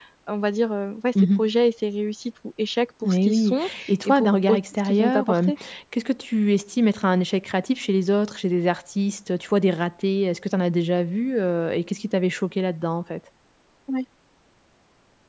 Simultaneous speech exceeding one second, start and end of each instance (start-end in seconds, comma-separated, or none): 3.0-5.5